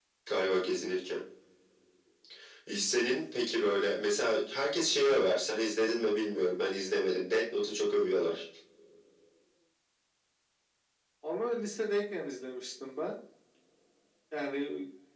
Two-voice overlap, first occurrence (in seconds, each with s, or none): none